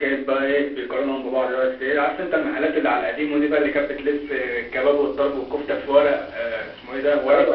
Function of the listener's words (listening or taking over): taking over